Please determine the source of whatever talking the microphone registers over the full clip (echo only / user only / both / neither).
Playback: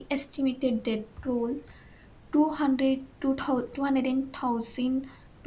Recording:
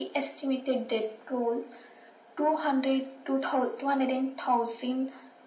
echo only